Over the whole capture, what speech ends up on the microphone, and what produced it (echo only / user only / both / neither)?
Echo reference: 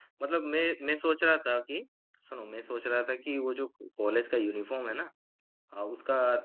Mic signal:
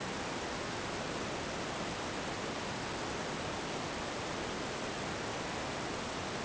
neither